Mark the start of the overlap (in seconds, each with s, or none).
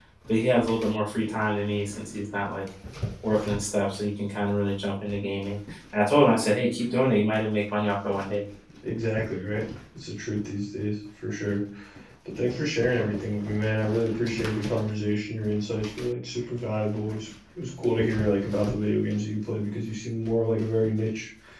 none